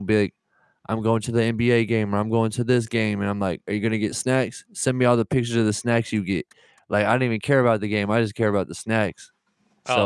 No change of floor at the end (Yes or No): No